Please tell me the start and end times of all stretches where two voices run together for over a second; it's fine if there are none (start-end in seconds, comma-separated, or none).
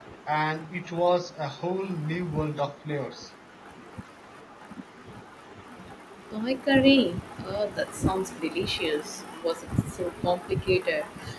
none